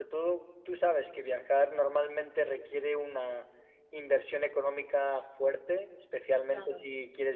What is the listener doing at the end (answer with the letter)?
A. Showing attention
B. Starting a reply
A